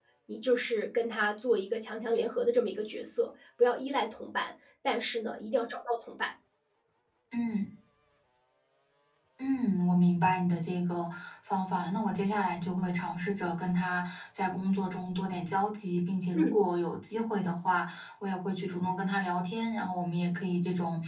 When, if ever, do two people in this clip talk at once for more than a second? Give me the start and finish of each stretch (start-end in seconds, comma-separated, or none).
none